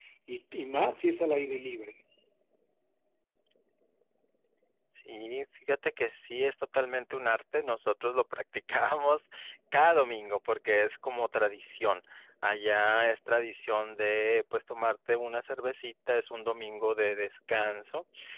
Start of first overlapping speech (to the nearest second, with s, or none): none